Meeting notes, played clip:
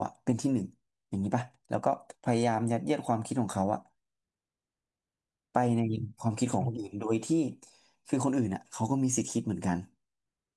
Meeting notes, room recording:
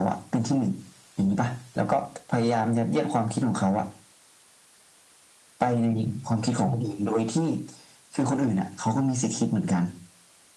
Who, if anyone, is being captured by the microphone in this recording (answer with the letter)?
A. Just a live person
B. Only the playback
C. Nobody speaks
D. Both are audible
B